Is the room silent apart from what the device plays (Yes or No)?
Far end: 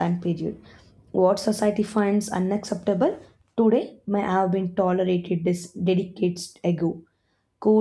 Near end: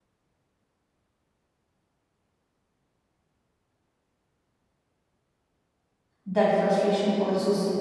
No